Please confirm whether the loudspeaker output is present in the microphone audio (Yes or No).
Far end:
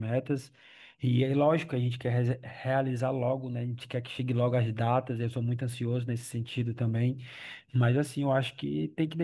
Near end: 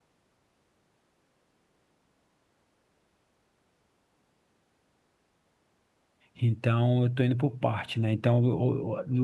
No